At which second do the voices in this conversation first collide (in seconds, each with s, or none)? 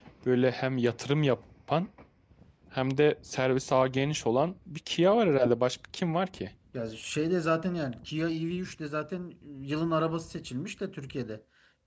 none